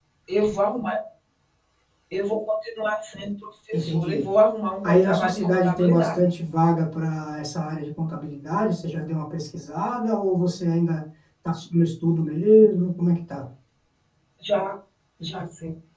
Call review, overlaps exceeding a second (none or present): present